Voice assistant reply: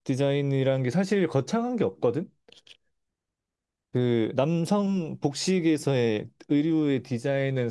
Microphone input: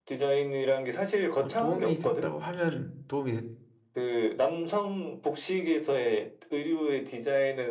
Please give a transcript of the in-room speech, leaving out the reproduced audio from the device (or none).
어, 도움이 됐다고 하면 도움이 됐,